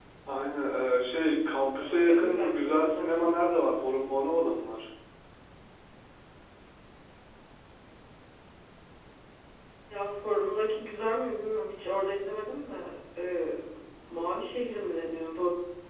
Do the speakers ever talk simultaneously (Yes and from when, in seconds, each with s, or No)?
Yes, from 1.8 s